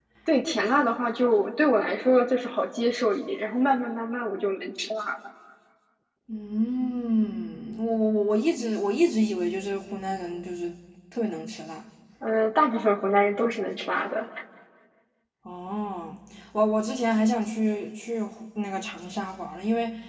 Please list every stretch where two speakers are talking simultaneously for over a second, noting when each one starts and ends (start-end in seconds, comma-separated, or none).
none